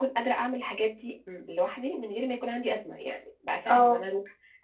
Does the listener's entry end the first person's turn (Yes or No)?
No